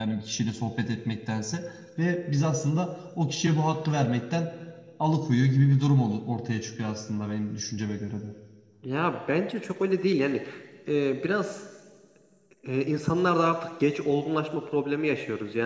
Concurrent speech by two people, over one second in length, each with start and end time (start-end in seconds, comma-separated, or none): none